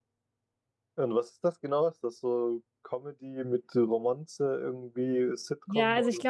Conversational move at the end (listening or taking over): taking over